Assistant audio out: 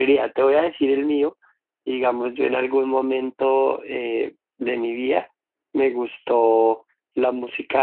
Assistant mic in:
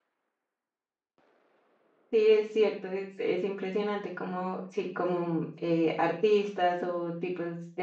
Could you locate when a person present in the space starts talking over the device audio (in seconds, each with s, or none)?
2.1 s